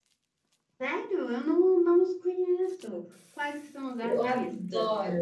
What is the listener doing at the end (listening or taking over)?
taking over